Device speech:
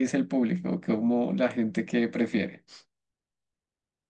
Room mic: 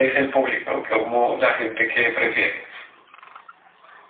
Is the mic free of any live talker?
Yes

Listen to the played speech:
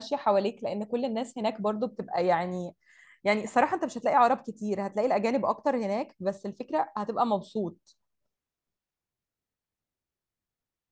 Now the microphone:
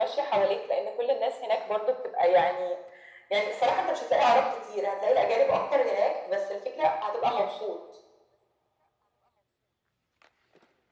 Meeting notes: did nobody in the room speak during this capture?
Yes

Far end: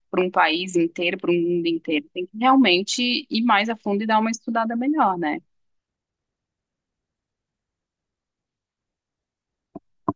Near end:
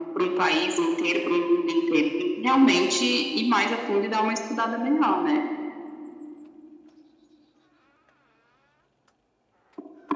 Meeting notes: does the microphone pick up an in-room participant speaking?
No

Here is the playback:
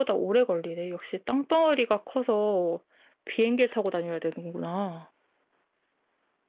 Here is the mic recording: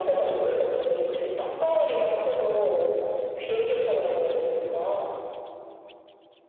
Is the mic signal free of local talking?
Yes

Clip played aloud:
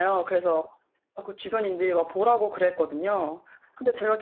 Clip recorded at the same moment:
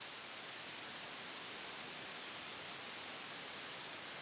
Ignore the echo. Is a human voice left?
No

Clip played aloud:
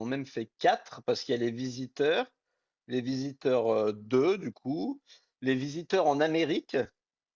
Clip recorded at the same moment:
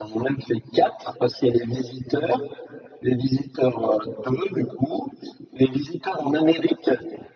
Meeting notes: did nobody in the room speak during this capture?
Yes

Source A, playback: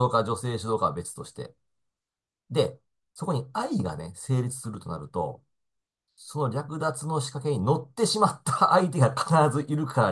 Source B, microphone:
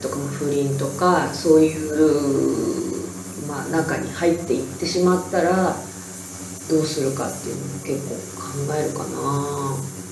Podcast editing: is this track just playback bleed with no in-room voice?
No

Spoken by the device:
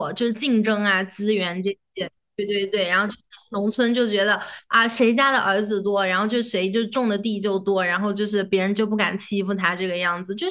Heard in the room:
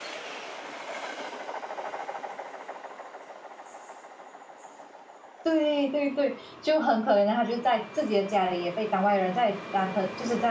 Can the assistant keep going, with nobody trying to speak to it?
No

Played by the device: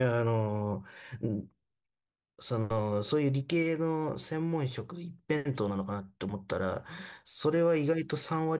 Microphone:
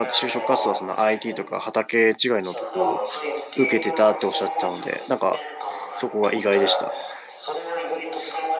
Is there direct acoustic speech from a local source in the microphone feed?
Yes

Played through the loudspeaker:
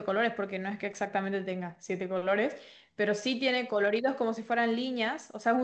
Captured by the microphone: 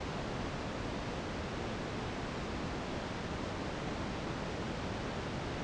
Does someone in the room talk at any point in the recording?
No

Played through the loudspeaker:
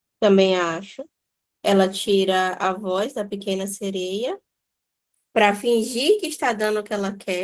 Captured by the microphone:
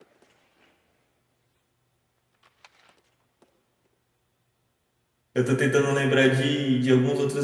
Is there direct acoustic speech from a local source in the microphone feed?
Yes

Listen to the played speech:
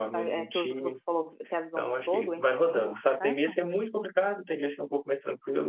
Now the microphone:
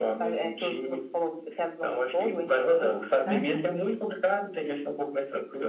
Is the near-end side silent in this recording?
No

